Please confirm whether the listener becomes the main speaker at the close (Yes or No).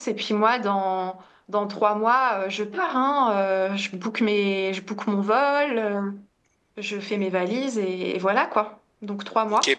Yes